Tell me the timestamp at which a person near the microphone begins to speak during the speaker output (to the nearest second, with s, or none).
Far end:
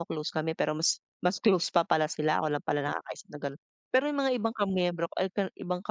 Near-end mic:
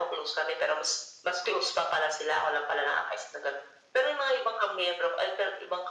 none